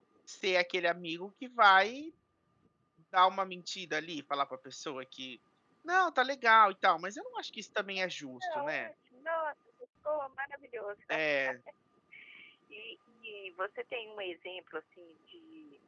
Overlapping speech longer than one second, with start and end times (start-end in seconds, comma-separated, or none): none